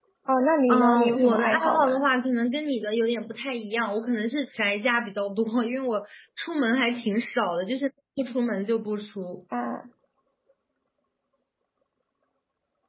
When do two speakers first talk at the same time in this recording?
0.7 s

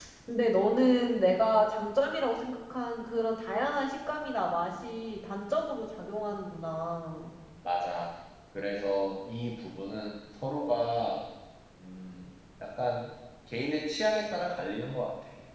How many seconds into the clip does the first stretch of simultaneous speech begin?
none

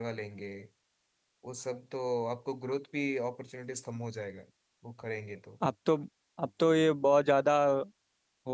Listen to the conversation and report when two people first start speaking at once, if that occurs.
none

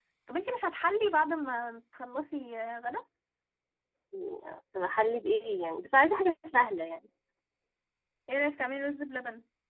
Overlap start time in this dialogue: none

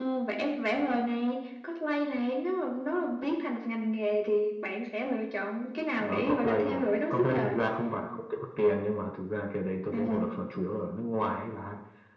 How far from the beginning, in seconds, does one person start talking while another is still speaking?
6.0 s

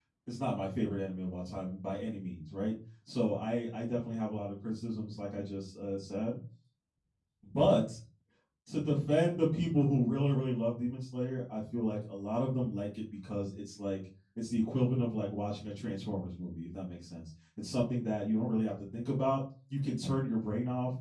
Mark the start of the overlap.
none

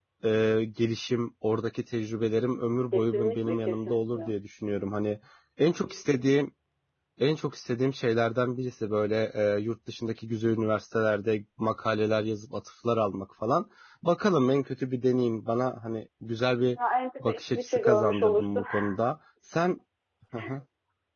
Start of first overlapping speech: 2.9 s

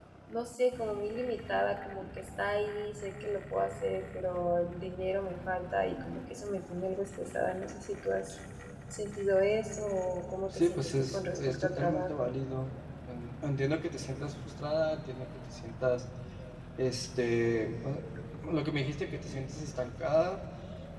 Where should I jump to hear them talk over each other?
10.5 s

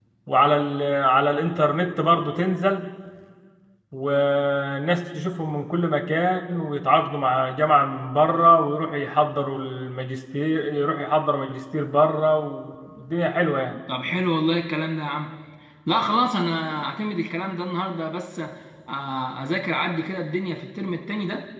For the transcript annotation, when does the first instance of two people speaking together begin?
none

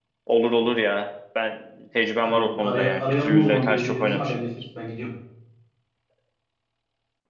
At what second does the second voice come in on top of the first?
2.2 s

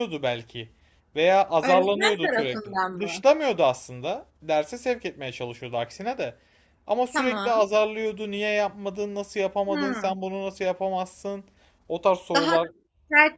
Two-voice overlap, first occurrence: 1.6 s

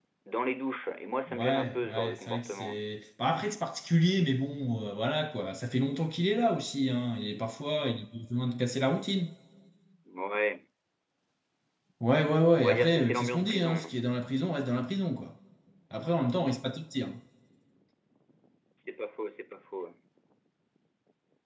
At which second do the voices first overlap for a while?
1.3 s

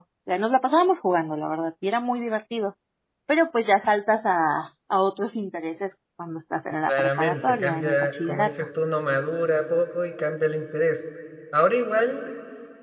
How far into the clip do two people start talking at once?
6.9 s

